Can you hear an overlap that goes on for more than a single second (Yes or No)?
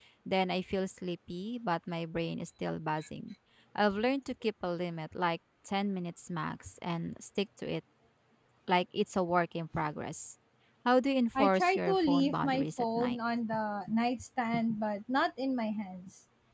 Yes